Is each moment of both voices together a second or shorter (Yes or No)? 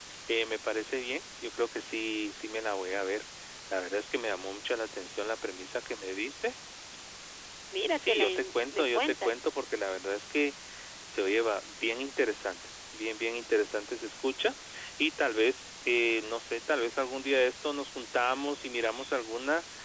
No